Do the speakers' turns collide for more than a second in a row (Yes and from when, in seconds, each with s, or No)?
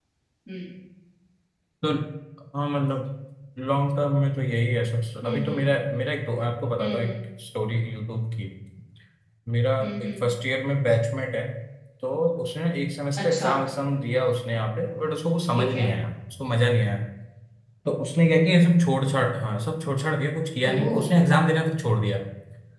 No